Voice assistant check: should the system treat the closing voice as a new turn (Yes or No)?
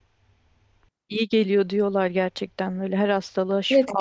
Yes